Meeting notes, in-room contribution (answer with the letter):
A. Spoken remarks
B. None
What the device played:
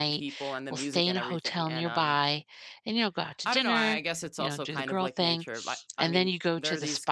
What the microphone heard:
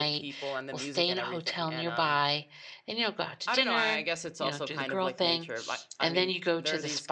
B